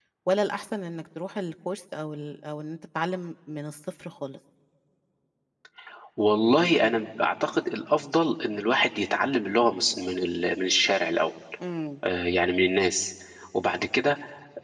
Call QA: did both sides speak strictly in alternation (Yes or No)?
Yes